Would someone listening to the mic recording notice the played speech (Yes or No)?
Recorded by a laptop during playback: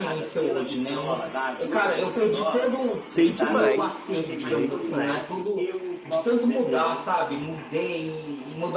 Yes